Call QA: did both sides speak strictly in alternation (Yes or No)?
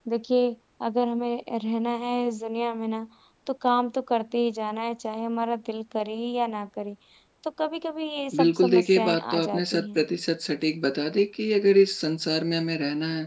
No